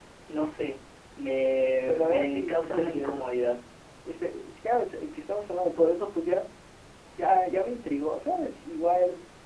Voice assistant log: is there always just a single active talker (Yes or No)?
No